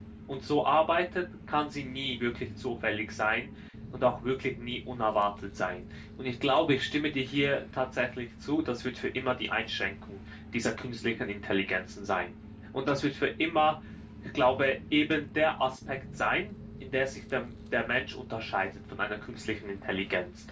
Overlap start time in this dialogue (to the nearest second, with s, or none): none